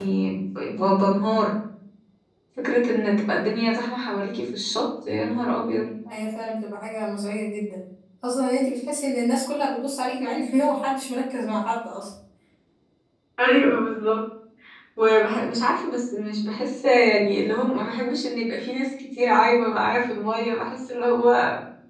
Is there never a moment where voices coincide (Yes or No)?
Yes